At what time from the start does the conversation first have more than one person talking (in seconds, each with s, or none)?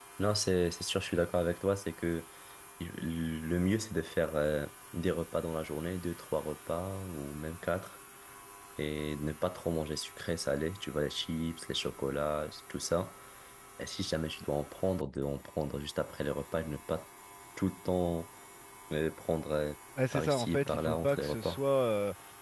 20.1 s